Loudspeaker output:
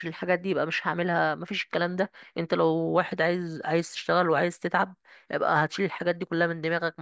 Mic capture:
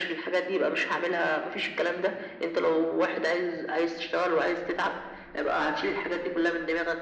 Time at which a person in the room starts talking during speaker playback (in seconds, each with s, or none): none